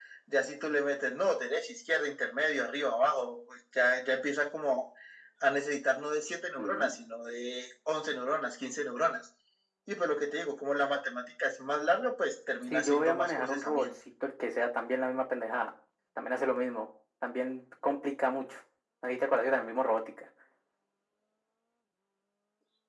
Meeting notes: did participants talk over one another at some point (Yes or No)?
Yes